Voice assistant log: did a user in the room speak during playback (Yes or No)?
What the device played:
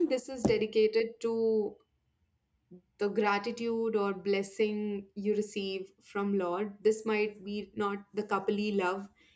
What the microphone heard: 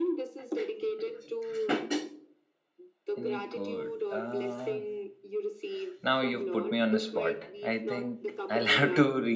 Yes